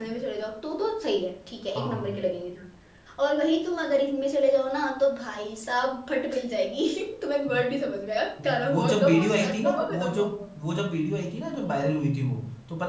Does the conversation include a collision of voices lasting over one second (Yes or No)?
Yes